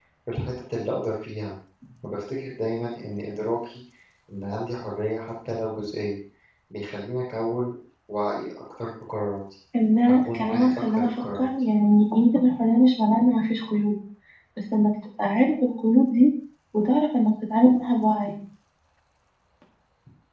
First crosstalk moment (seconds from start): 10.1 s

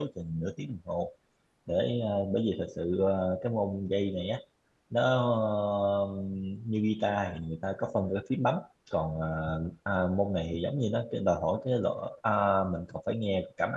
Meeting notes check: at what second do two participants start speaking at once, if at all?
none

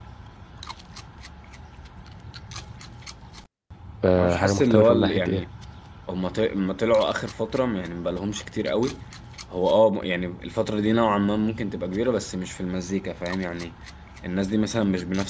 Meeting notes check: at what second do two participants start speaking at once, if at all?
4.2 s

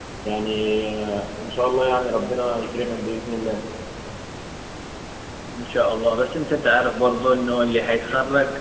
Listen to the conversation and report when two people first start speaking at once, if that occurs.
none

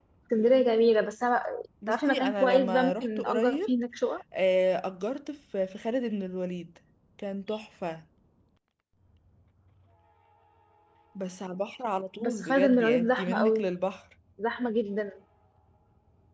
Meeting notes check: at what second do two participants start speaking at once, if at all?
1.9 s

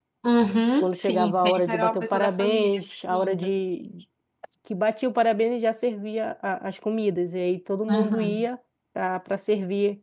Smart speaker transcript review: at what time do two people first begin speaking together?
0.8 s

